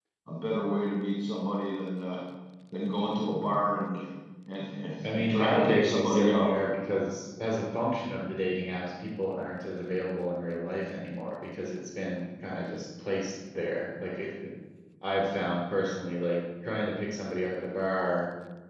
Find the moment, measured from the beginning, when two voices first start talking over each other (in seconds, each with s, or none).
5.0 s